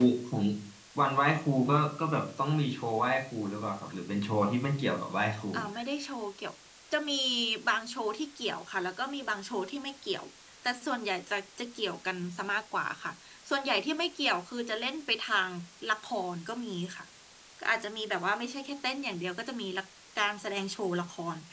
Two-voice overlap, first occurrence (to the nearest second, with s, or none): none